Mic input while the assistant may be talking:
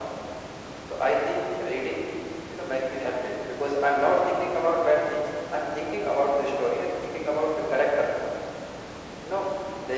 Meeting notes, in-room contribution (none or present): none